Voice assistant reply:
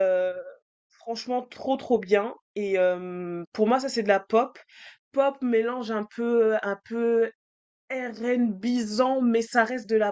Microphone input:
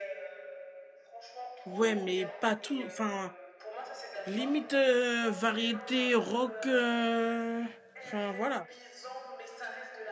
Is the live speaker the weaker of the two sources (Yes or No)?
No